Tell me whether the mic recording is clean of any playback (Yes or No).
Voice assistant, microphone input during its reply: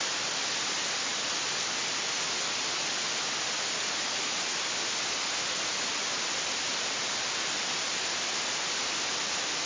Yes